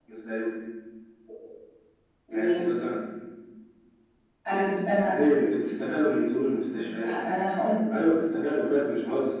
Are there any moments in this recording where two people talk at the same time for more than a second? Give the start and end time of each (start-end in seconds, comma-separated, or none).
none